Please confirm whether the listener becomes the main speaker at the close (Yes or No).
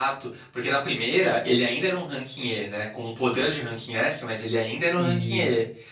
No